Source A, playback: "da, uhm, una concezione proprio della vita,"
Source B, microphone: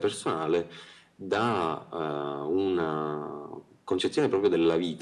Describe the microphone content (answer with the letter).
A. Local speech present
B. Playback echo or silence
B